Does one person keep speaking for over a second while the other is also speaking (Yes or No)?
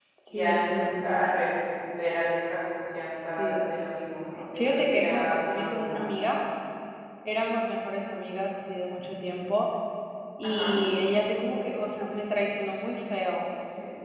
Yes